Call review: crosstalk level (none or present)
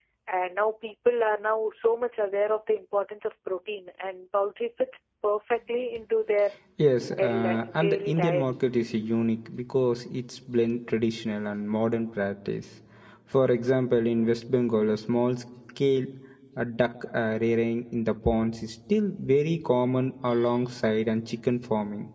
present